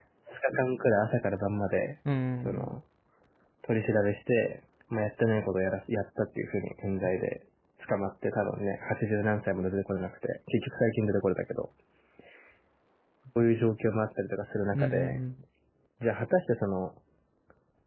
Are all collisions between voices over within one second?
Yes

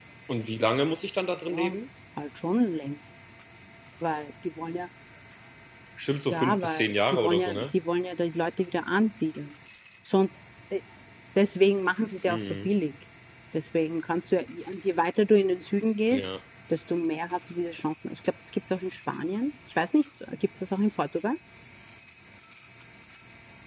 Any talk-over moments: Yes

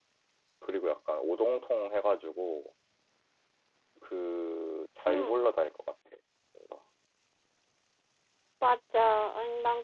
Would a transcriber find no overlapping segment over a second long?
Yes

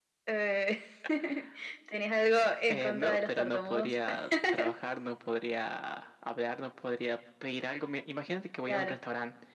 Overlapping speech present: Yes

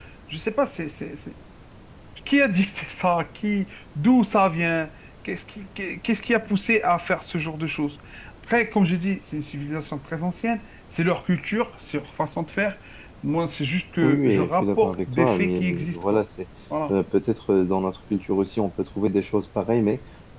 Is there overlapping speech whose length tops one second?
Yes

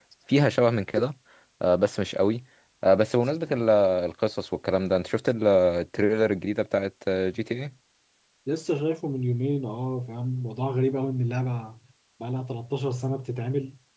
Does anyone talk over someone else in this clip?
No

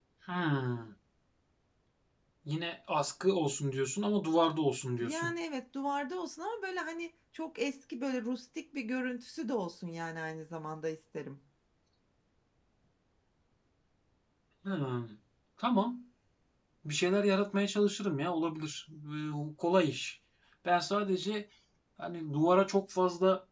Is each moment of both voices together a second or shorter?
Yes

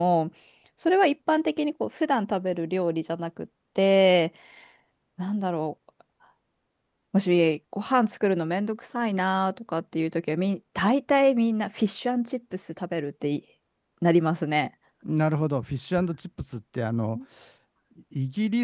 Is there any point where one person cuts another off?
No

